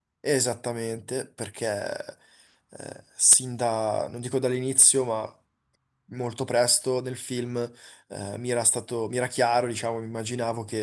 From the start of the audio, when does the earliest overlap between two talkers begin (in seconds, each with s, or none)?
none